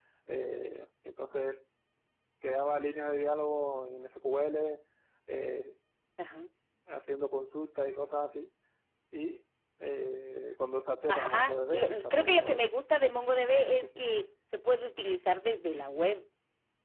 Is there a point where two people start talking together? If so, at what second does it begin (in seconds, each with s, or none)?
11.1 s